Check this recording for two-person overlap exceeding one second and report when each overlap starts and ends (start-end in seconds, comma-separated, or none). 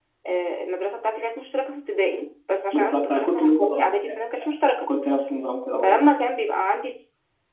2.7-4.2